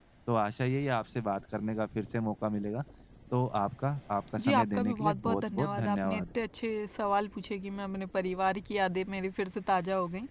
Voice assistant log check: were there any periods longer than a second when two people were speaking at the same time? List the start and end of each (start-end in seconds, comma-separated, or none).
4.4-6.2